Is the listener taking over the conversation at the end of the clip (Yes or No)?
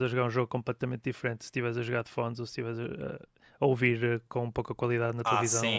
Yes